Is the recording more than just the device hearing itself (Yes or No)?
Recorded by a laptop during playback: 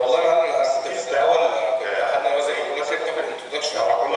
No